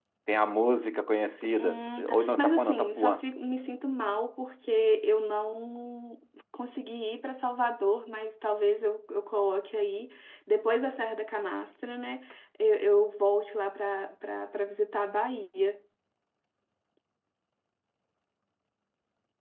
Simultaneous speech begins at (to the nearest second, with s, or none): 2 s